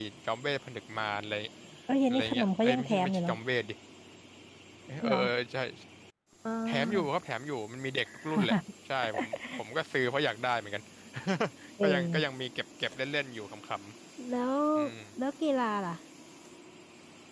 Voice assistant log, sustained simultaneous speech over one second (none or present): present